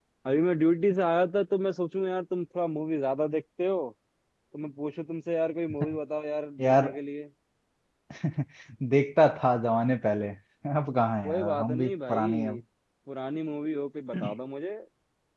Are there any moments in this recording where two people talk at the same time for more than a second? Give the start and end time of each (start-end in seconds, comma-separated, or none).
11.2-12.6